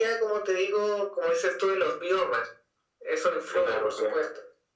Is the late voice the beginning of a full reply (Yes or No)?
Yes